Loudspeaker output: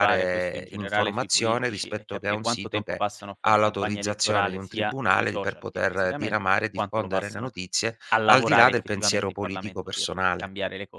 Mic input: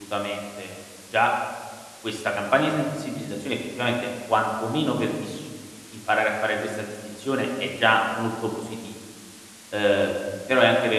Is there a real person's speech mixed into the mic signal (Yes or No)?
Yes